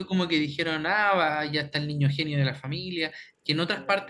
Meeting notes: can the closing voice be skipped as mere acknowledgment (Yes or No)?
Yes